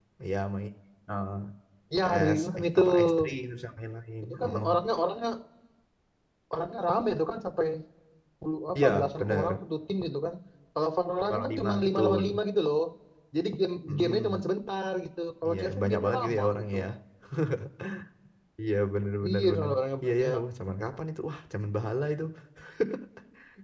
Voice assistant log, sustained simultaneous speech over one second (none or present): present